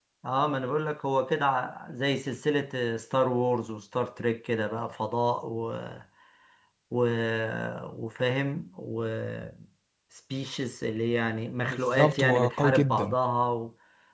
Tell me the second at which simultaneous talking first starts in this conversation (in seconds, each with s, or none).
11.7 s